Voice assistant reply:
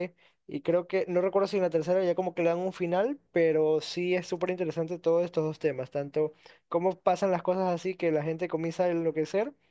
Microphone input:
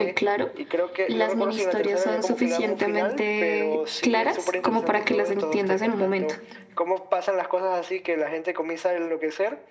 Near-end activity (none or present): present